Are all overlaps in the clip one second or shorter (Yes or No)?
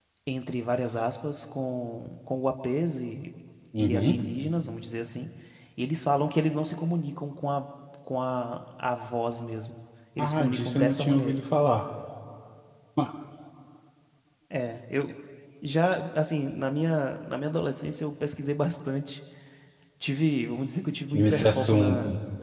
No